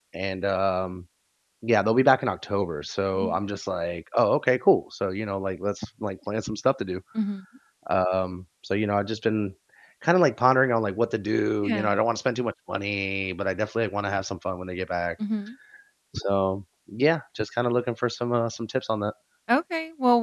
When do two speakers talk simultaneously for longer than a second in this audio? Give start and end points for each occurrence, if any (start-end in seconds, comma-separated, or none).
none